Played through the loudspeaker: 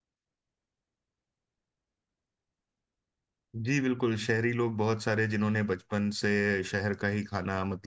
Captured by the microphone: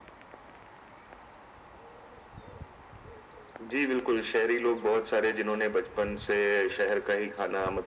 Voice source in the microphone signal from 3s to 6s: echo only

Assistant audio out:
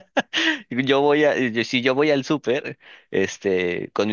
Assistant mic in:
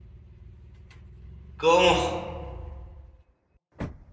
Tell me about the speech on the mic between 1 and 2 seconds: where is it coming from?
user only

